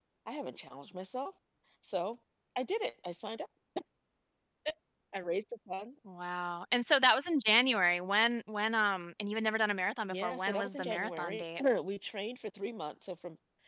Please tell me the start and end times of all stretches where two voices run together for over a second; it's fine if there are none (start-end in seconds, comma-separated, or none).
10.1-11.6